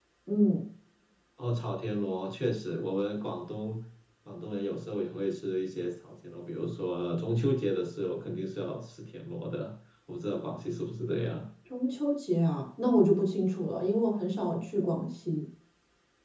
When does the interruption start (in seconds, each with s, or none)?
none